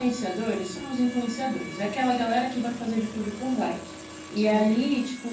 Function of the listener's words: listening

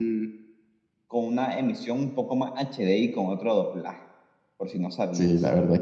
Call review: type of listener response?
taking over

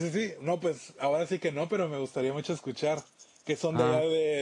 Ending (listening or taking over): taking over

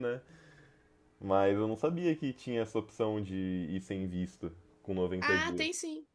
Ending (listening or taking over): taking over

